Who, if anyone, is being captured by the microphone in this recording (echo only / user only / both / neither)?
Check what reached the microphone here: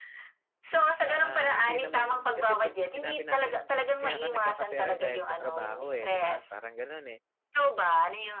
both